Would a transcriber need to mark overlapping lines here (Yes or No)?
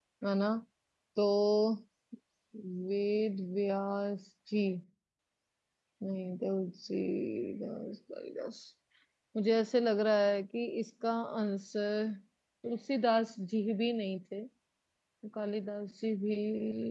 No